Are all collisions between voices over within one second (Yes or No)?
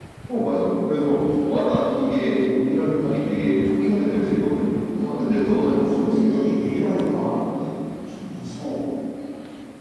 No